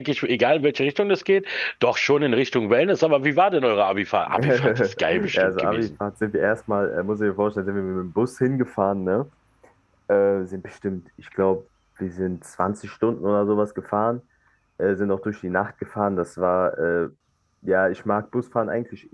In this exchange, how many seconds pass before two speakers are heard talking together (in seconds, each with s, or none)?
4.3 s